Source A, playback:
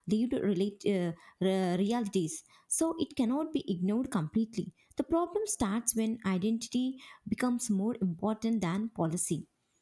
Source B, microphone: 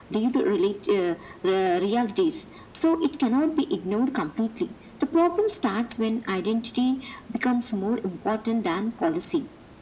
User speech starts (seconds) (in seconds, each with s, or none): none